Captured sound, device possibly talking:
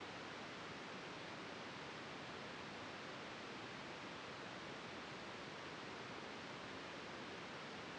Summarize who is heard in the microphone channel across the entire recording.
neither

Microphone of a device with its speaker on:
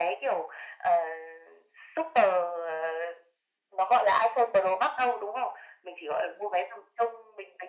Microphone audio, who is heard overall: echo only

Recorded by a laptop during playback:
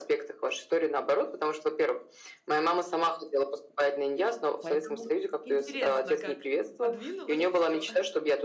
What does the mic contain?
both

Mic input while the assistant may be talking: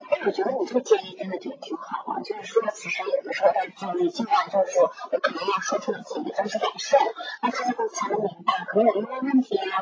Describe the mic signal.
echo only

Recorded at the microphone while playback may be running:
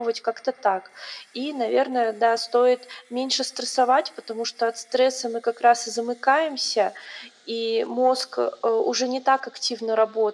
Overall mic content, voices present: echo only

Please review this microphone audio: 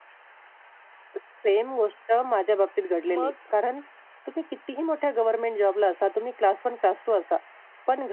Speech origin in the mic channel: both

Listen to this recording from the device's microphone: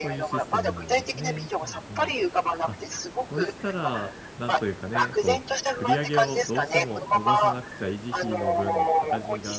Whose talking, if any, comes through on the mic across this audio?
both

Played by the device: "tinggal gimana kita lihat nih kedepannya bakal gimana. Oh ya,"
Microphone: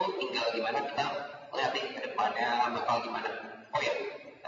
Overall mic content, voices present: echo only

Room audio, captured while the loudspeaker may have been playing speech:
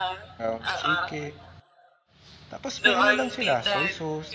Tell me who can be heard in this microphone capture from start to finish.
both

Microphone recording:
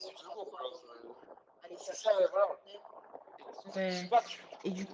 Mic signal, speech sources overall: both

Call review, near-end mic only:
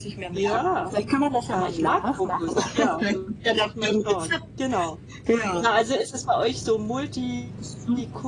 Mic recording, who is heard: both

